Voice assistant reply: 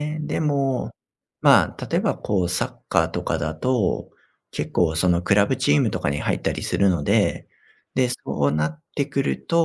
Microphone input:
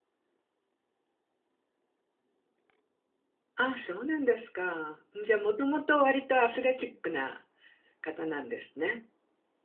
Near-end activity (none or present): present